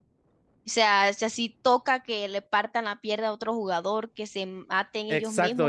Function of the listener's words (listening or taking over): taking over